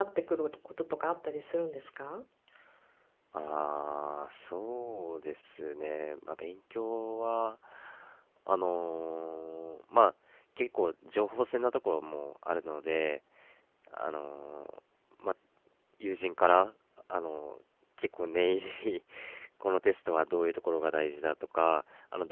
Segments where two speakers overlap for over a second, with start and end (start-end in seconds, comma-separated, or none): none